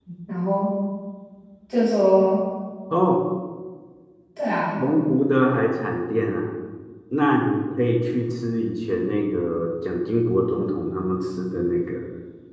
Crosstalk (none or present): none